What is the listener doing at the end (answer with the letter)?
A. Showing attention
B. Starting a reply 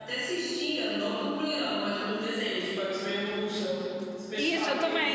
B